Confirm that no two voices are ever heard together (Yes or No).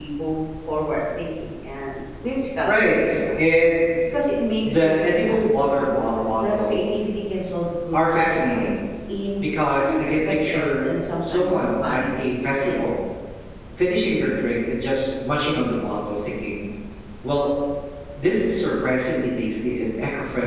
No